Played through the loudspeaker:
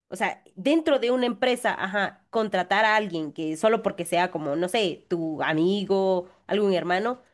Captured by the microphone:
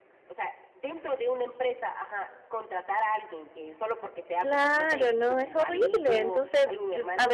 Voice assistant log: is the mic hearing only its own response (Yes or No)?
No